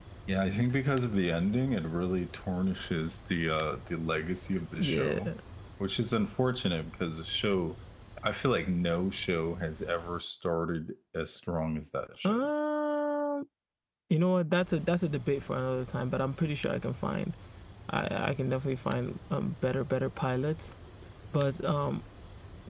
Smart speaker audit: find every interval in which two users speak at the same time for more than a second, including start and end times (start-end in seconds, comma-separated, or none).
none